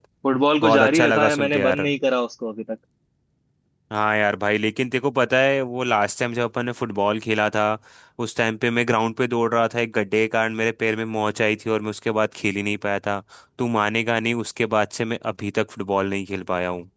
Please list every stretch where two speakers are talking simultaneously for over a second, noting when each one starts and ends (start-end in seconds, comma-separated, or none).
0.6-1.9